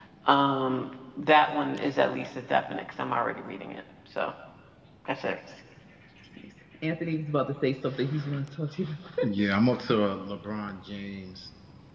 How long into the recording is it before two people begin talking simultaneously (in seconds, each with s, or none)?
none